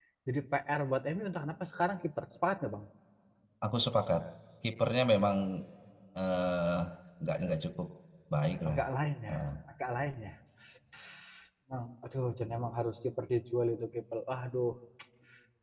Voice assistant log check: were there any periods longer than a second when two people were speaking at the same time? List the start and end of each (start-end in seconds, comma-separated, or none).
none